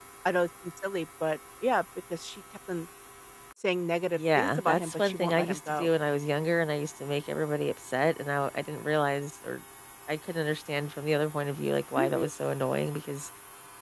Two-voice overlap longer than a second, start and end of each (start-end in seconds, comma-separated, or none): 4.2-5.9